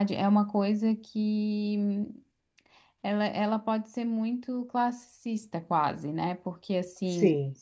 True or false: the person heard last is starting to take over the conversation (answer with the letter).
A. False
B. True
A